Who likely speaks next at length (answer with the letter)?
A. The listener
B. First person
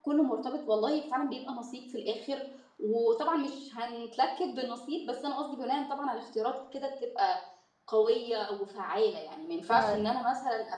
B